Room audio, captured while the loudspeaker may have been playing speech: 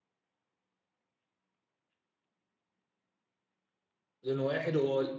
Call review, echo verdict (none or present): none